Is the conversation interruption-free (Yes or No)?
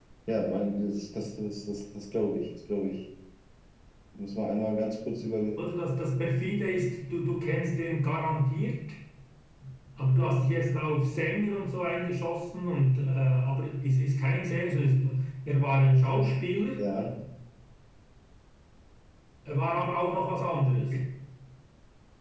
Yes